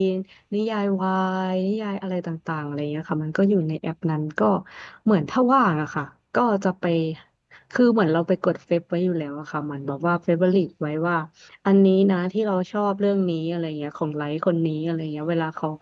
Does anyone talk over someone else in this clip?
No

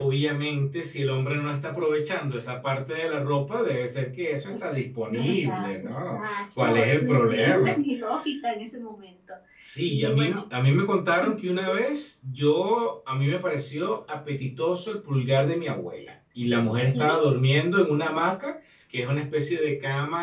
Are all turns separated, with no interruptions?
No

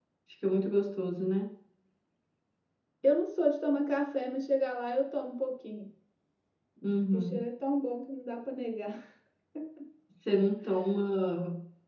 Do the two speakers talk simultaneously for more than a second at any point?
No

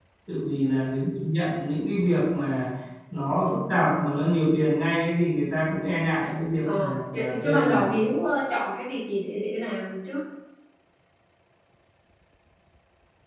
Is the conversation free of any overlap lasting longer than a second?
No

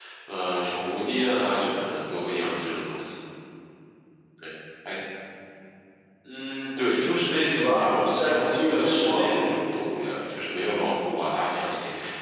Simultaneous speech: Yes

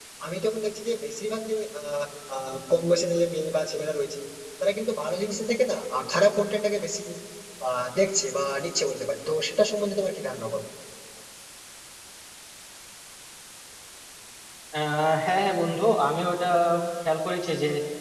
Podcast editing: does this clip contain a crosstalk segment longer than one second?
No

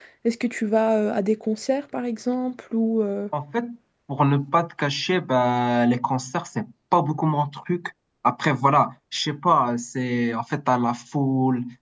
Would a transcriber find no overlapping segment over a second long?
Yes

